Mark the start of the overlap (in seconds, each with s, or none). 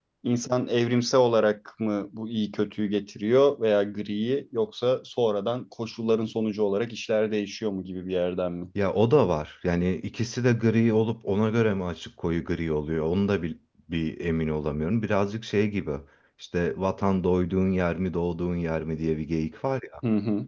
none